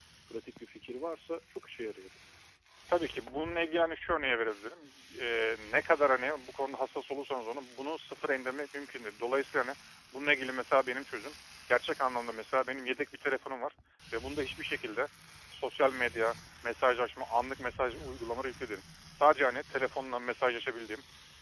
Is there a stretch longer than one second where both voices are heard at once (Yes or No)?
No